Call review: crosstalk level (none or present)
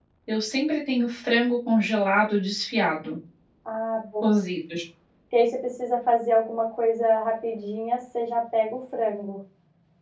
none